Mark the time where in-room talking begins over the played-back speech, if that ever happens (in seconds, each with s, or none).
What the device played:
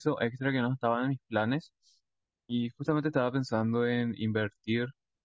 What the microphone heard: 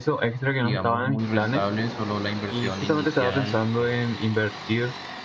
0.6 s